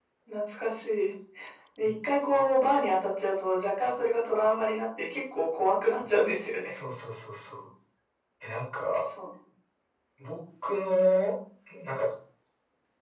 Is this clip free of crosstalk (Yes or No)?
Yes